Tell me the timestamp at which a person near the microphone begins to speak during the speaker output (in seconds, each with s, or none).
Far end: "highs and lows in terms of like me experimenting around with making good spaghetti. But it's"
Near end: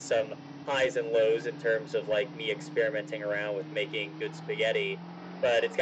none